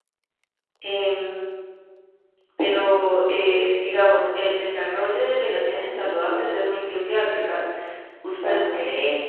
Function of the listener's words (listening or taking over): listening